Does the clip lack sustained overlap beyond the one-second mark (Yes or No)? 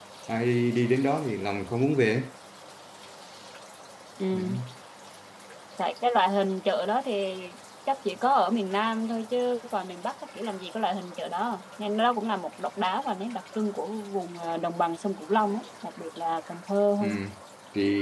Yes